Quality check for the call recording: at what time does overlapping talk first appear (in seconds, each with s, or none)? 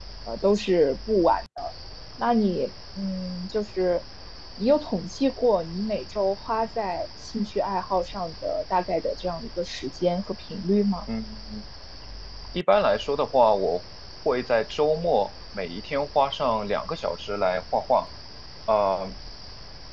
none